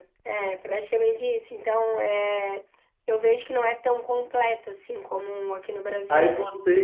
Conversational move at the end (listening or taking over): taking over